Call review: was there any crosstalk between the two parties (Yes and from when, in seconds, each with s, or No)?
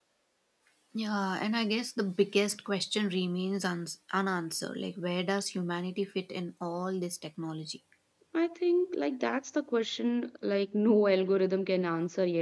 No